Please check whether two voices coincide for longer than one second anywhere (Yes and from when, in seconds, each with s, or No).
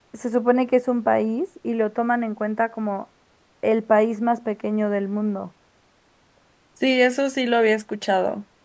No